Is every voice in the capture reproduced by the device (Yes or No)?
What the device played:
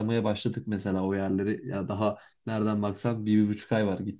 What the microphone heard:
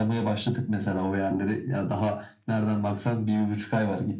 Yes